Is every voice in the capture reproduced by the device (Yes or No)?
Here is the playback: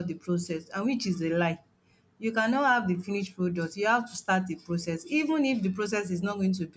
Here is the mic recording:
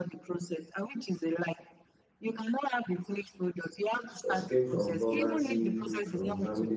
No